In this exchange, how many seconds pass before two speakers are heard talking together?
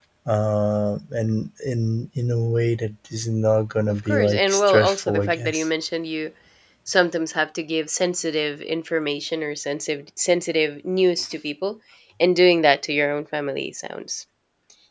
4.0 s

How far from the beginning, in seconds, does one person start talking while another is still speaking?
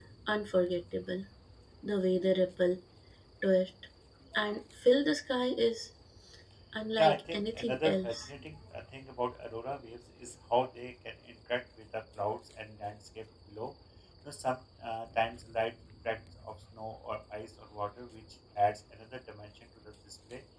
7.0 s

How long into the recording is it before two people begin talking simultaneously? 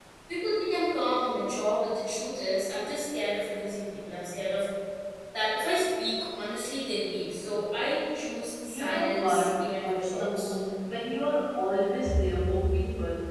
8.7 s

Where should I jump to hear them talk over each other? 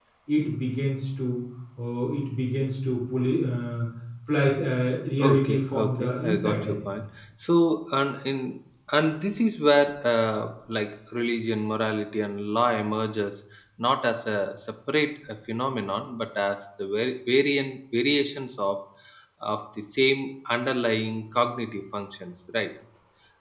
5.2 s

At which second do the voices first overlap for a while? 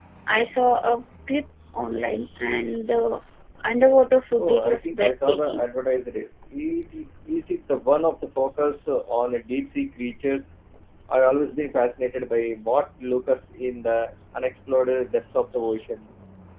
4.4 s

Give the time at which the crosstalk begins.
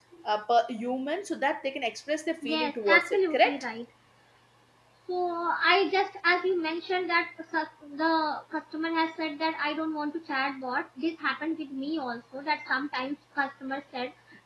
2.4 s

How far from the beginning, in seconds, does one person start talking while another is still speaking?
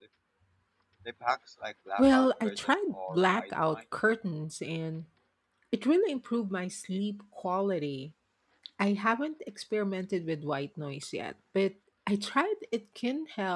2.0 s

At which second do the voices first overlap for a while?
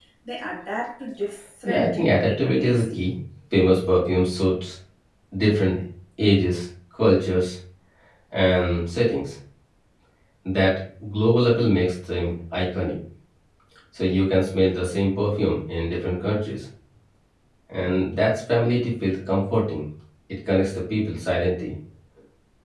1.6 s

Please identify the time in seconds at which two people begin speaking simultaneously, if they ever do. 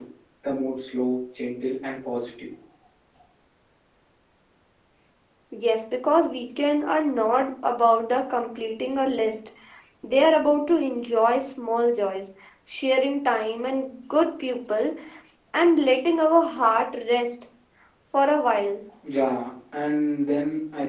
none

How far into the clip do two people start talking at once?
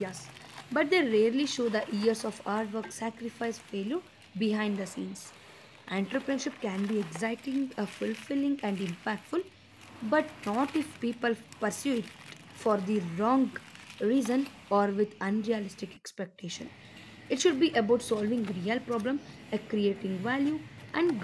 none

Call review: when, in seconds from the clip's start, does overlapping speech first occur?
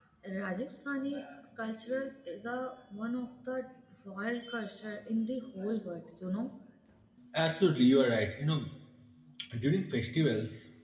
none

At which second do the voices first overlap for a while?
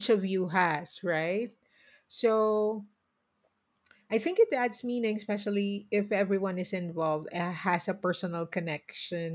none

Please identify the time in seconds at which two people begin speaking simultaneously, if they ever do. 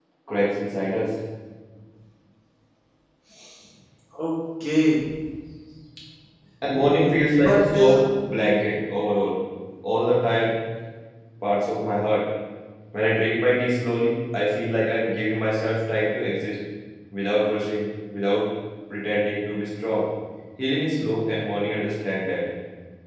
6.7 s

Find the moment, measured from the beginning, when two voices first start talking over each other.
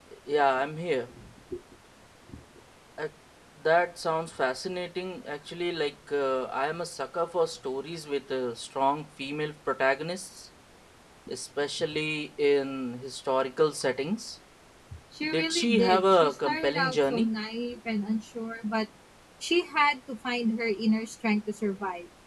15.3 s

